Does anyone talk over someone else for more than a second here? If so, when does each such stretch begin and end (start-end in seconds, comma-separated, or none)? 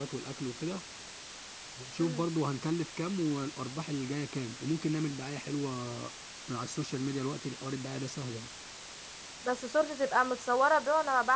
none